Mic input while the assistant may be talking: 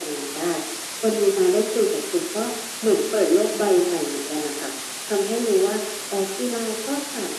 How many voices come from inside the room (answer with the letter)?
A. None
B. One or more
A